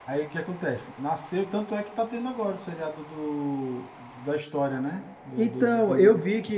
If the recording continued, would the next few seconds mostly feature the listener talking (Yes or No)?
Yes